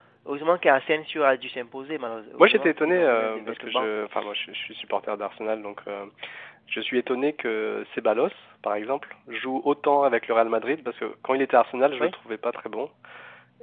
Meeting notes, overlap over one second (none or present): present